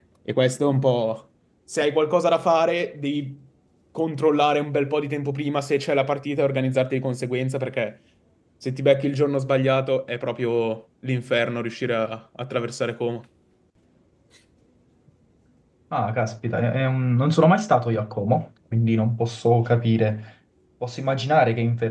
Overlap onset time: none

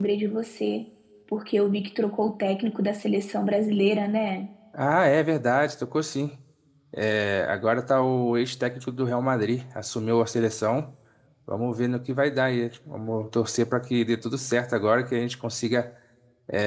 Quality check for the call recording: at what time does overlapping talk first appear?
none

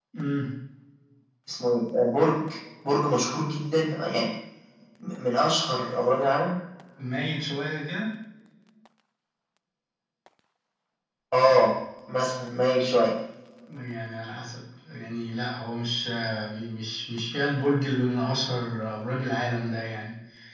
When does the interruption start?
none

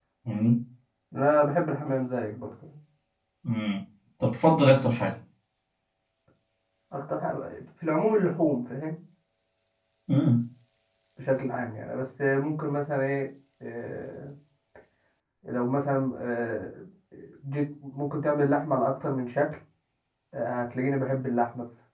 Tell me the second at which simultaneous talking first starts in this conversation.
none

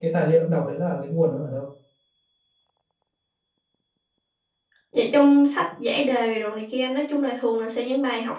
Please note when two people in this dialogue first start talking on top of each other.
none

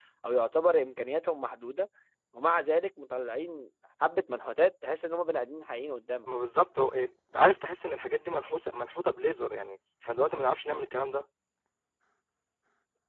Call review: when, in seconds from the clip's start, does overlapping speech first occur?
none

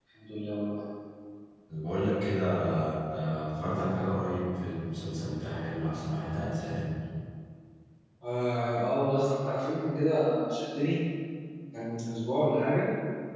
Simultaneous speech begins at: none

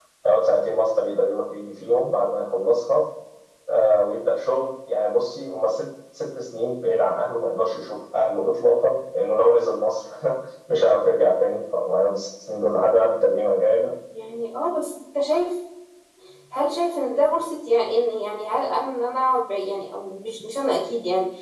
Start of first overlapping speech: none

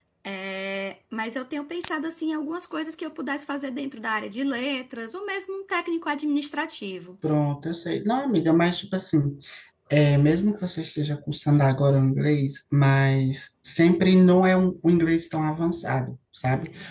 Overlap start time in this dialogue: none

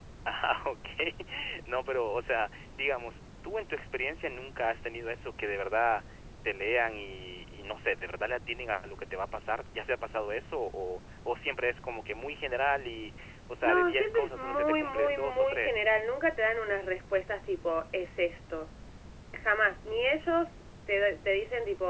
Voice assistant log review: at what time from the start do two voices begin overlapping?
13.6 s

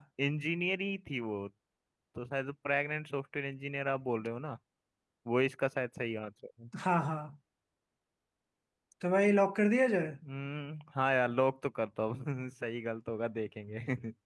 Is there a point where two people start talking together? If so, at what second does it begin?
none

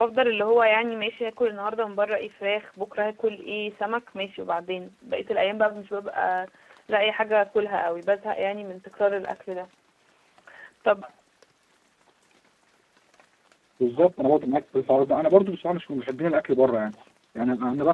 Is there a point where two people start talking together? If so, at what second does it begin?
none

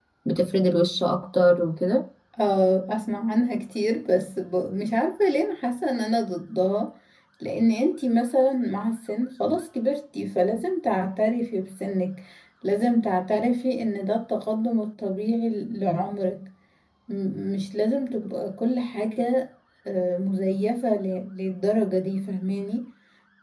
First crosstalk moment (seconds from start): none

